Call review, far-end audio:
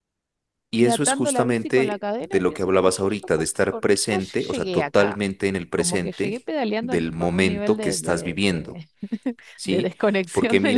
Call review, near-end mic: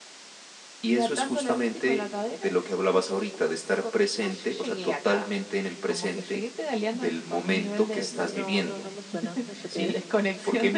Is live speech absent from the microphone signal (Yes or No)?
No